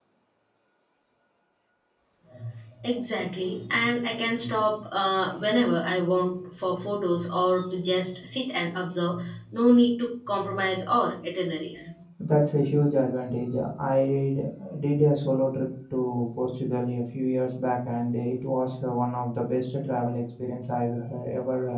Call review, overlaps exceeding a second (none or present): none